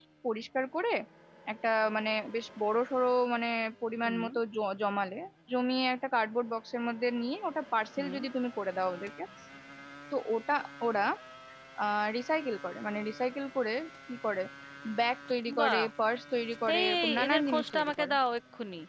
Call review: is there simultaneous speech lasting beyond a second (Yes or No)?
Yes